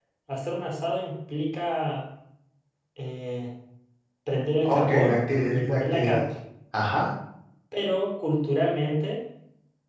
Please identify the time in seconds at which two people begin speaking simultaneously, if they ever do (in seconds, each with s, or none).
4.6 s